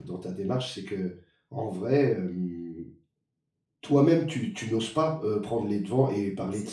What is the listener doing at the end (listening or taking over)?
listening